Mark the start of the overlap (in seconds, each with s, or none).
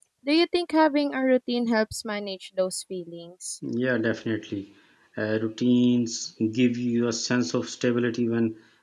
none